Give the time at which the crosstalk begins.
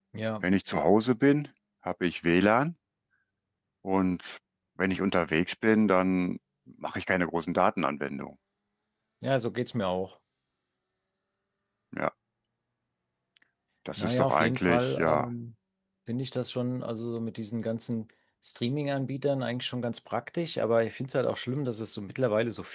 14.0 s

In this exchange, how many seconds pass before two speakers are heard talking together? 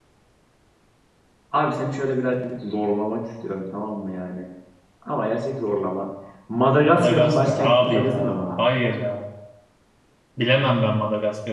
6.8 s

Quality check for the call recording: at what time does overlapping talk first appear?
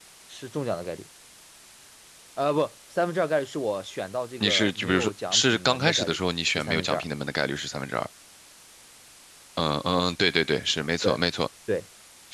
4.4 s

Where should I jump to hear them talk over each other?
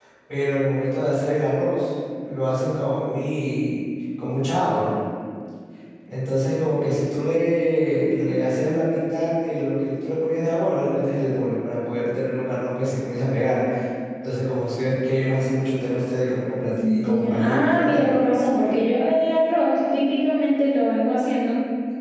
16.8 s

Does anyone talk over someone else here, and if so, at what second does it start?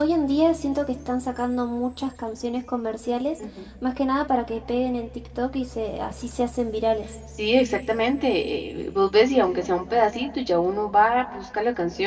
none

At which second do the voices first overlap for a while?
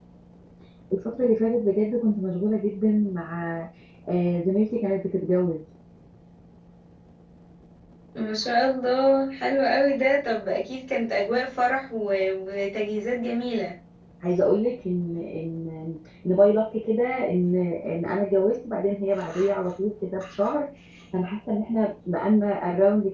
none

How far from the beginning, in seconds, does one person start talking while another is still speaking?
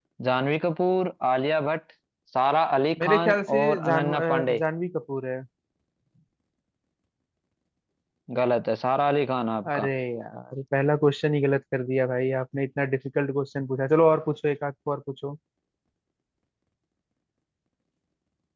3.0 s

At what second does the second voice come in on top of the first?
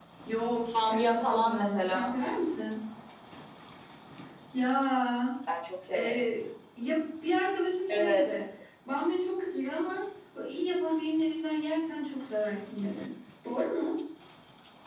0.8 s

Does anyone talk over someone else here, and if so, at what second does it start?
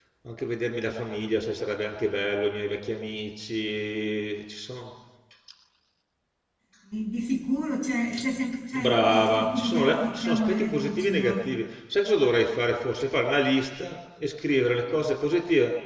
8.7 s

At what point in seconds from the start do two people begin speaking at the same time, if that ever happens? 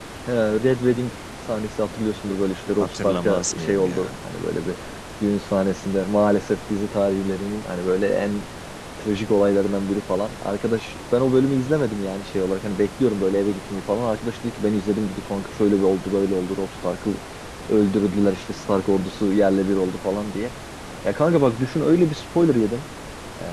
2.8 s

